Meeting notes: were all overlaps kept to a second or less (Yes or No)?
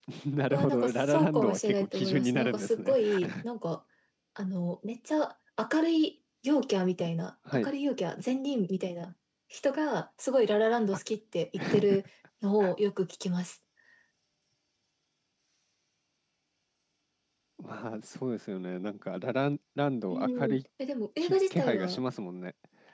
No